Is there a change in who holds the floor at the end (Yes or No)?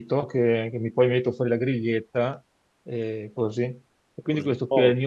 No